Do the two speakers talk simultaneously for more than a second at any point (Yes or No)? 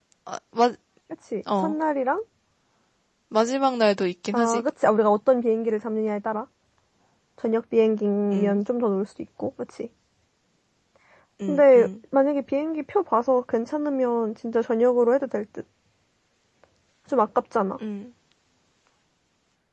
No